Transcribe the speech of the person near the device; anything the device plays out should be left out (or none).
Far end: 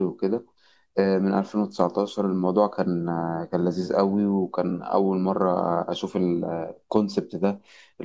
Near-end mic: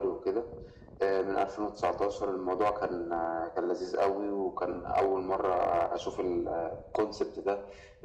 none